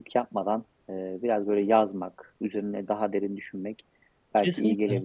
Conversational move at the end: listening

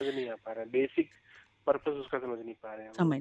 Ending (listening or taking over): taking over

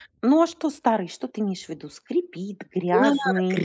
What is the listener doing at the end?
taking over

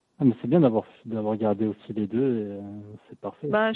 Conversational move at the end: taking over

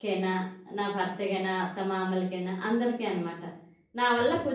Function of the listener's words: listening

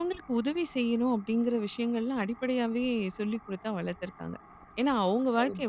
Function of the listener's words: listening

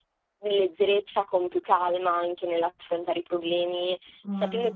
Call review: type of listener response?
listening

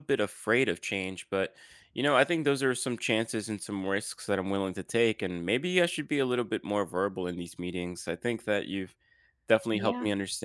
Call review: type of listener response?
listening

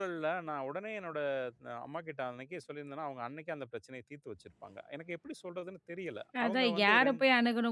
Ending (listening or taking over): taking over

